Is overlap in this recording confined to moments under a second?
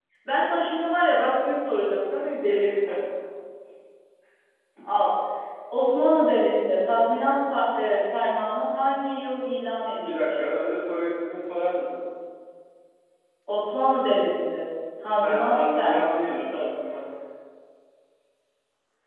No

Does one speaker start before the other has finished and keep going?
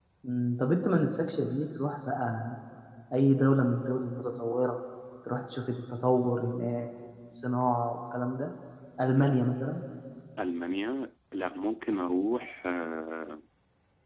No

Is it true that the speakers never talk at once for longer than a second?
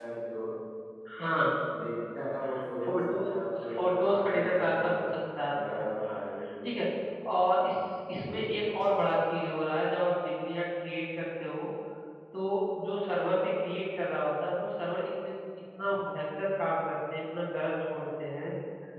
No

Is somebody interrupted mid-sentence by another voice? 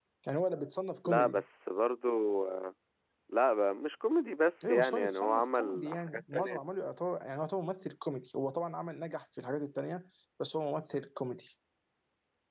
Yes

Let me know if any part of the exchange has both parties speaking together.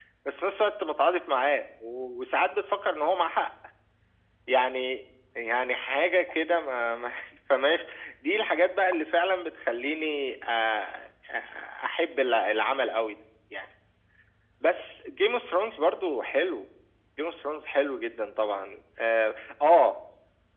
No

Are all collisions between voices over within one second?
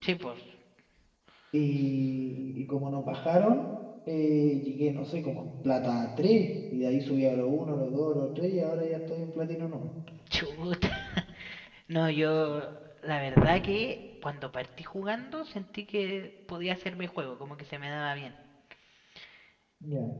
Yes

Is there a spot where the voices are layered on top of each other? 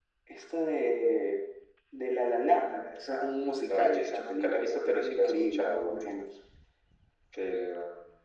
Yes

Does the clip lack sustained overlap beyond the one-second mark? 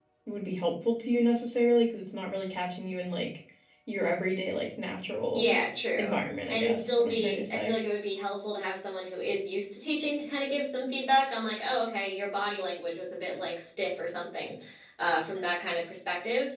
No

